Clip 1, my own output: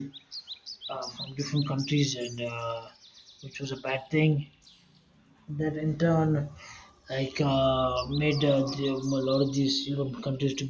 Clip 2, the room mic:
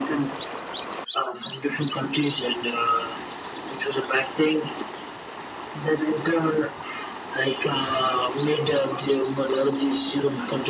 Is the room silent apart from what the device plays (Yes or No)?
Yes